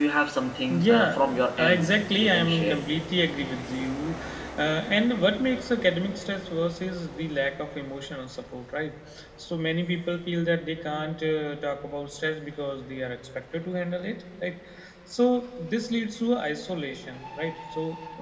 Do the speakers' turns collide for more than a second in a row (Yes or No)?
Yes